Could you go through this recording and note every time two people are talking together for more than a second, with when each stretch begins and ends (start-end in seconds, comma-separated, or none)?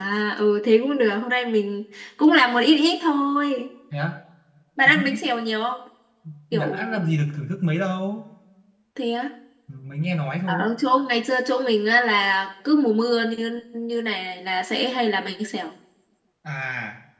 none